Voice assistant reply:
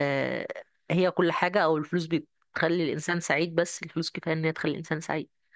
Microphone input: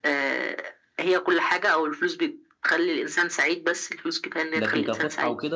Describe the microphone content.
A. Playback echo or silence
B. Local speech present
B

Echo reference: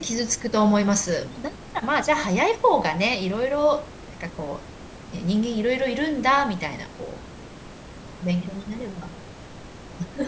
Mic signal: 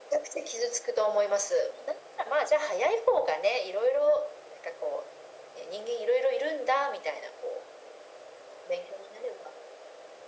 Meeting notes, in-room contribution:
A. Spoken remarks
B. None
B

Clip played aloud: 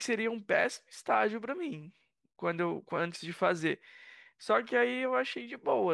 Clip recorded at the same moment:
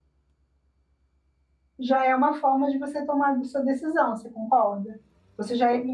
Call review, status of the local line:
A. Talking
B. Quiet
A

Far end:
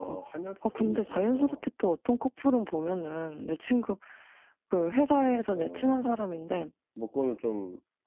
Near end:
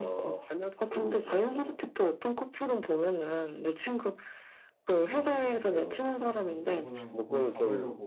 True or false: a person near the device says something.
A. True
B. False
A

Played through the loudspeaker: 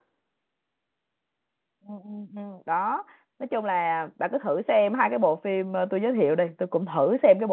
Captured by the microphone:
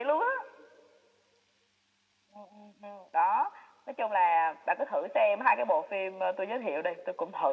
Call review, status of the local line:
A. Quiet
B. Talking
A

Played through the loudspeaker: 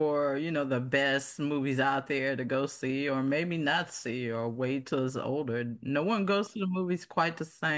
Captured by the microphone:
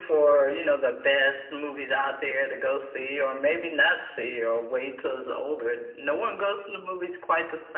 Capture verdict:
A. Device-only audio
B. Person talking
A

